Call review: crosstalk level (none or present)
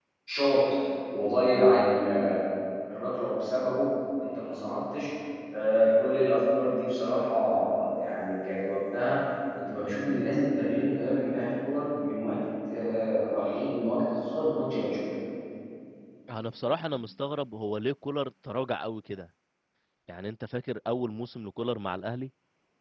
none